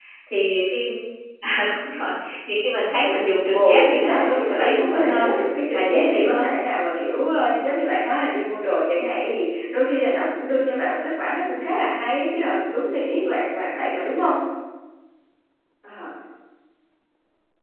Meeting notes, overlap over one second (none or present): present